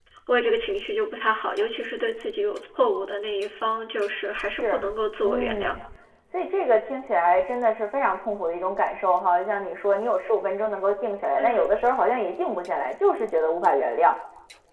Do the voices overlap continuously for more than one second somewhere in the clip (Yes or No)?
No